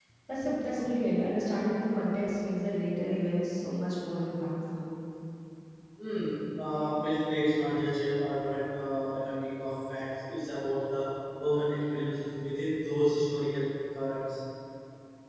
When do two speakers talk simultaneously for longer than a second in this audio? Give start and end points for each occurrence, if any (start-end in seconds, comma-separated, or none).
none